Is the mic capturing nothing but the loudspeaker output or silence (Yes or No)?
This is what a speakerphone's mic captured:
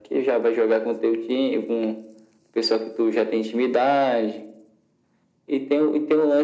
Yes